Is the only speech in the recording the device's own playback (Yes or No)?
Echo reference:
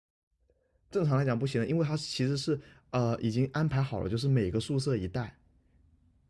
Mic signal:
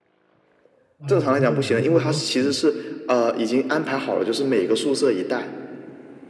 No